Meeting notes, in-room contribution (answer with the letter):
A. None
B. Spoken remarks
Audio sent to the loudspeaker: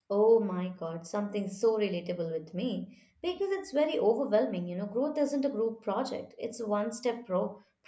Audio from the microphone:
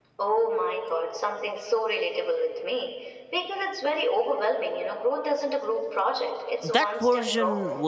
B